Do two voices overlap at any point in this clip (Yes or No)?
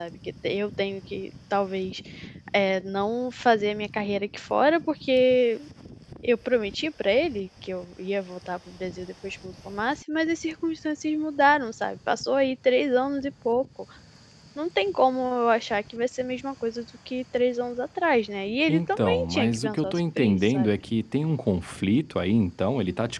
Yes